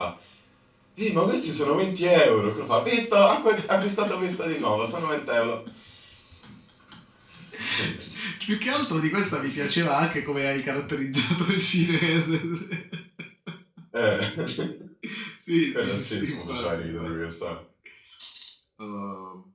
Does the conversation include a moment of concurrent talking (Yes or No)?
Yes